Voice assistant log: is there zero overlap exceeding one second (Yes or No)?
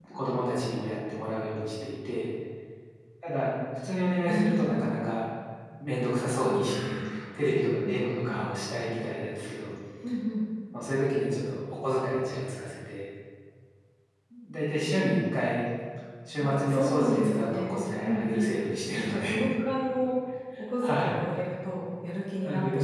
No